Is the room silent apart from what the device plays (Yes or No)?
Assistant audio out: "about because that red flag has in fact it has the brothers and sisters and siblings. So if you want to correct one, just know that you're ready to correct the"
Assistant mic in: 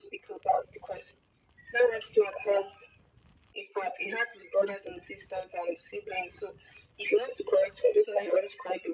Yes